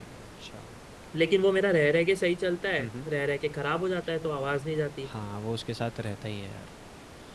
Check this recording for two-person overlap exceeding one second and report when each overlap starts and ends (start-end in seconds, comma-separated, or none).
none